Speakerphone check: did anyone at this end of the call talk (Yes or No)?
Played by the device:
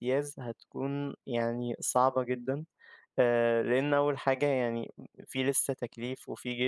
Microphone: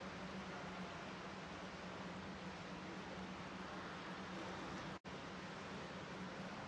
No